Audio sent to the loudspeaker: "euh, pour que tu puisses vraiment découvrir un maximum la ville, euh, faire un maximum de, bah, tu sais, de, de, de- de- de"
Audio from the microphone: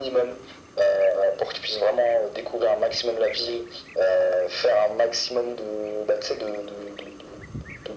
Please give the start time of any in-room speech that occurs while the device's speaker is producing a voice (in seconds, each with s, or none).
none